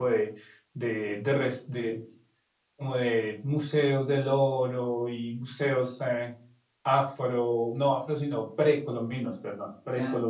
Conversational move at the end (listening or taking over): listening